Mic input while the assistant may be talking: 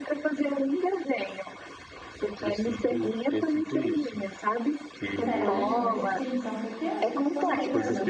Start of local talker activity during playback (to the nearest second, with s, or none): 5 s